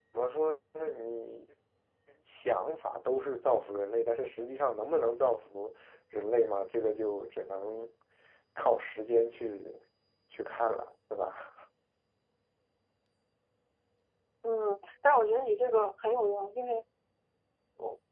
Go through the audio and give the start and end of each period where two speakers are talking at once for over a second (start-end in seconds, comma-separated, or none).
none